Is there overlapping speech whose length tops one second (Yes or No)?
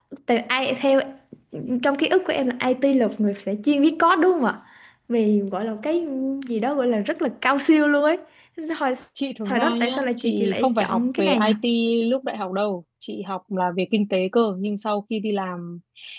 Yes